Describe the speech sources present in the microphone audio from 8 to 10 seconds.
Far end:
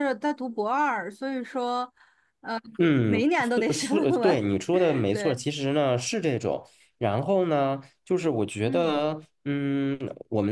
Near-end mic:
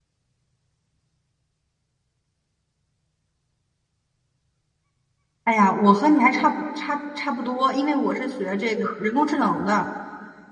user only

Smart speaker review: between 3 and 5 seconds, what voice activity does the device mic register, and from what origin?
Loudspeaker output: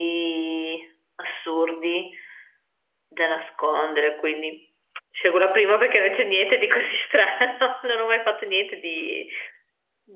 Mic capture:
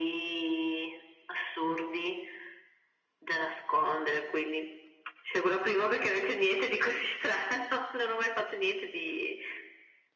echo only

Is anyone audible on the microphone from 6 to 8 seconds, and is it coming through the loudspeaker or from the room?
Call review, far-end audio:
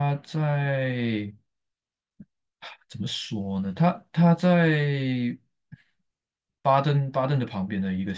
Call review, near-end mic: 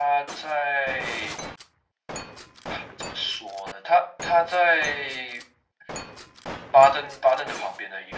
echo only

